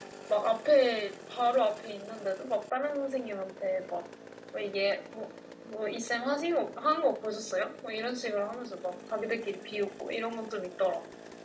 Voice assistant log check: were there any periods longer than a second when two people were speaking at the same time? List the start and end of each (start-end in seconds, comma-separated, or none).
none